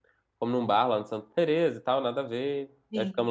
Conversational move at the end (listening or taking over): listening